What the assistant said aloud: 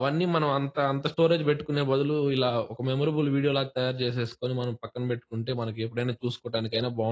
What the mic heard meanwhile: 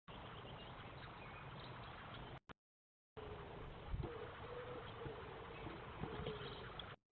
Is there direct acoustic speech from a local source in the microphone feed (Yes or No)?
No